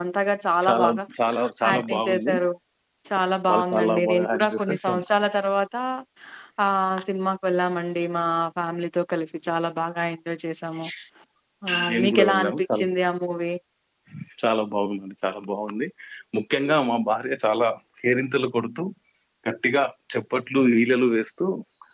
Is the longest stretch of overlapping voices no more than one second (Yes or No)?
No